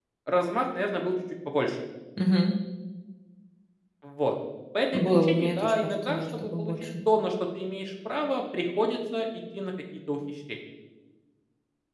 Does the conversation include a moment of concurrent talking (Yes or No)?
Yes